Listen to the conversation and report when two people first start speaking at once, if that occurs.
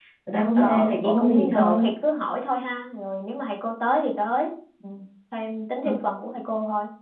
0.6 s

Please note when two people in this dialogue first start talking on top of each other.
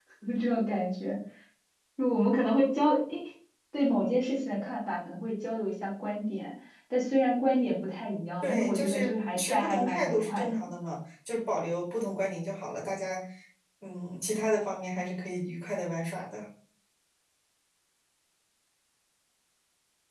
8.4 s

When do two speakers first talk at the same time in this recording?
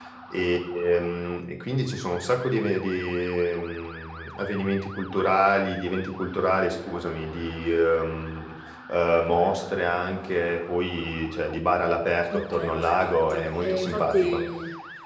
12.3 s

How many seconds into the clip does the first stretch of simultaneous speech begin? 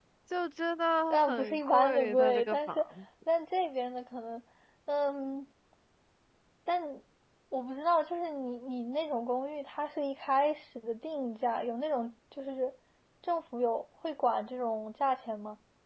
1.1 s

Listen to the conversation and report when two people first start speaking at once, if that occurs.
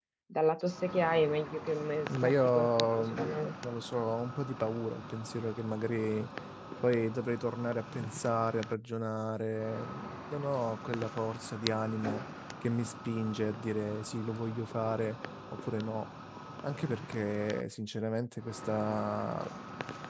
2.1 s

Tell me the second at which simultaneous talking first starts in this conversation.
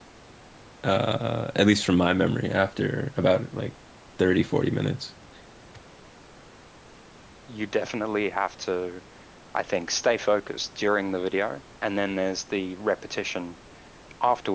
none

